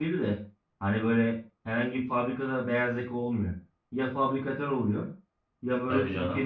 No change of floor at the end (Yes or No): Yes